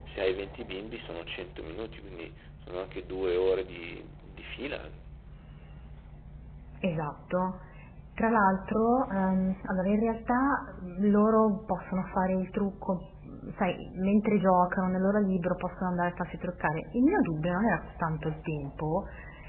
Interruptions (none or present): none